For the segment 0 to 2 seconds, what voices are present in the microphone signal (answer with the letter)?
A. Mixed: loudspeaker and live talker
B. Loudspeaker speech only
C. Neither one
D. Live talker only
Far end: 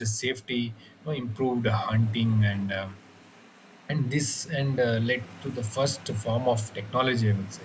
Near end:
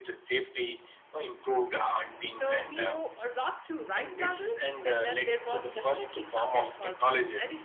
B